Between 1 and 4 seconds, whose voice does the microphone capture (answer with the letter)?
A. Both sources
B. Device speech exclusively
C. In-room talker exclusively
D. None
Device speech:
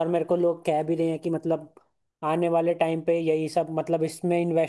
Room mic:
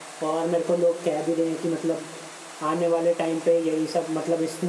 B